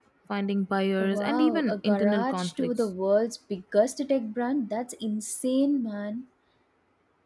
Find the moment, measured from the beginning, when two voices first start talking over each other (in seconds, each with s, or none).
1.0 s